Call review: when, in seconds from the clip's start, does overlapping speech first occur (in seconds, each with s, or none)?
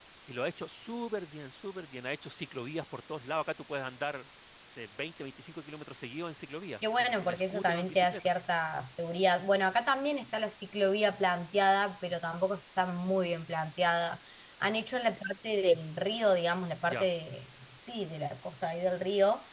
6.8 s